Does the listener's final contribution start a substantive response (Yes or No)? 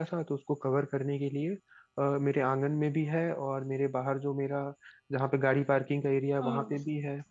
No